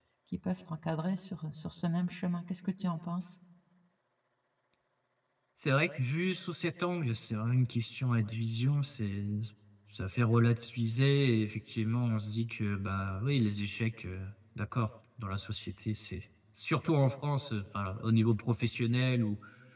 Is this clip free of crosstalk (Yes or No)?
Yes